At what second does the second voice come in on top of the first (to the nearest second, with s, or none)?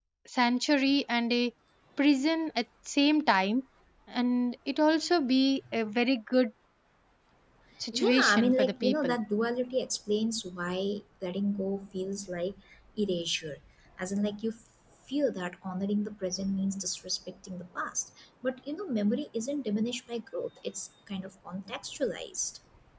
8 s